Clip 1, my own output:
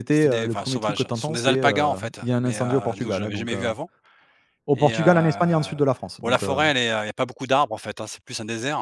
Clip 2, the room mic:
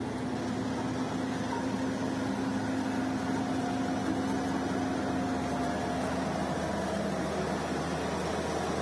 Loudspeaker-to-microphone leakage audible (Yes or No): No